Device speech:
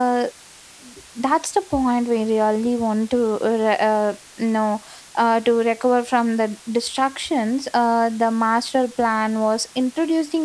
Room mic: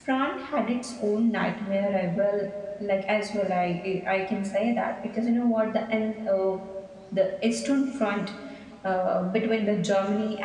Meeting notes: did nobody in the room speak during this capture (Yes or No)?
No